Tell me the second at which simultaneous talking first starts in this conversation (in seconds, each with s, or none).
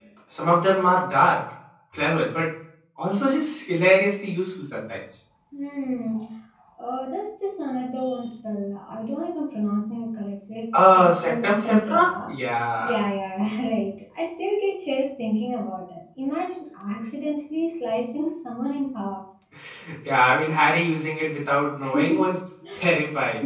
10.9 s